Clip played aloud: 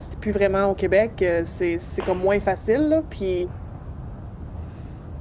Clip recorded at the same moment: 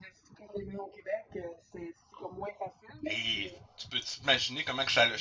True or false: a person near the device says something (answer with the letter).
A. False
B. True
B